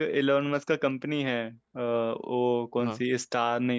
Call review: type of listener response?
listening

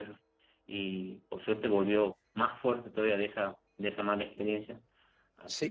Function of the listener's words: taking over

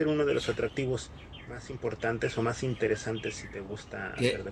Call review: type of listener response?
taking over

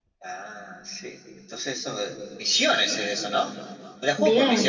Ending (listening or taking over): taking over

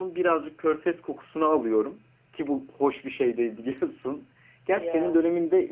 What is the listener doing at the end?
listening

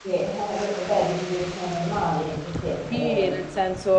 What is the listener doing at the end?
taking over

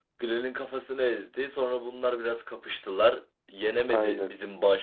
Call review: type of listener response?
listening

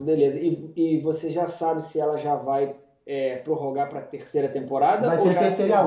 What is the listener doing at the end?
taking over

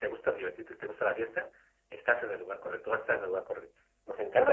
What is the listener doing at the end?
taking over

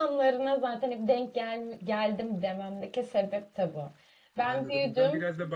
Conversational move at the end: taking over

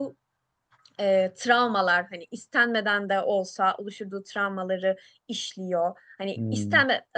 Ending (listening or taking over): listening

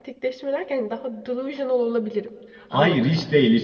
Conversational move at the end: taking over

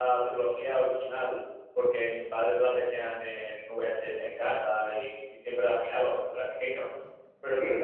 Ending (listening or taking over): listening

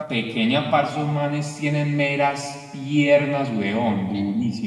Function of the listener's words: taking over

